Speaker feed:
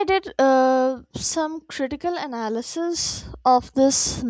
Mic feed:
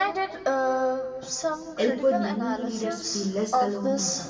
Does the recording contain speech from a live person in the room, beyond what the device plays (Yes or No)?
Yes